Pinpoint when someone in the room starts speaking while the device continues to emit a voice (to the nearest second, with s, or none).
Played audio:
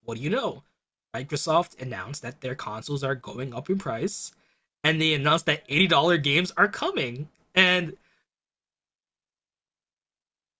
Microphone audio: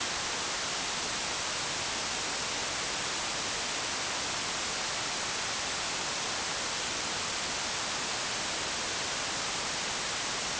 none